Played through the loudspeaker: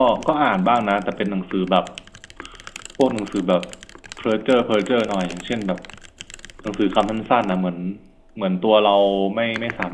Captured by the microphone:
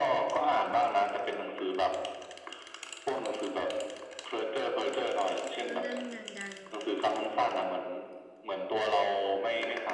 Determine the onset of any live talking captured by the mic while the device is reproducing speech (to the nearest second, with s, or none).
6 s